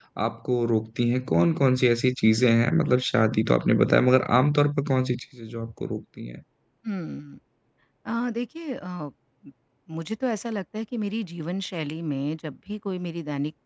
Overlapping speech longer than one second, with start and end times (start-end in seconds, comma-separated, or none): none